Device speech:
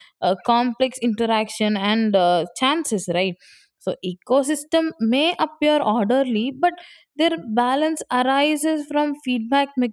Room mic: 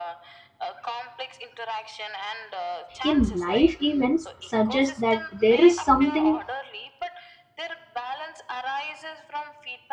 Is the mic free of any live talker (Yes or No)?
No